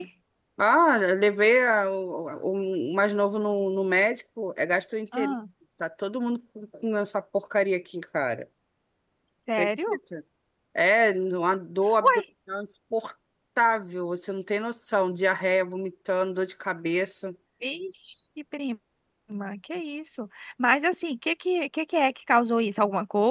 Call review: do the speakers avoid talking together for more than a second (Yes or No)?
Yes